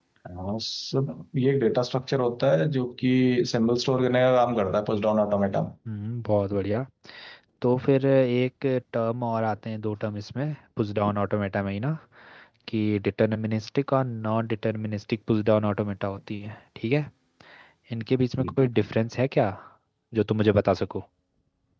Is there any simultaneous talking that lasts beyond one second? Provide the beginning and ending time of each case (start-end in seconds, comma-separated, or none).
none